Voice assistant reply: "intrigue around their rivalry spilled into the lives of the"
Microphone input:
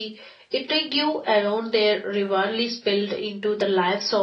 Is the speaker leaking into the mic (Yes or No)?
Yes